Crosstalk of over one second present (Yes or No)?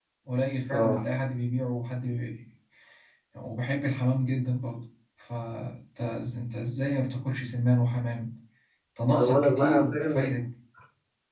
Yes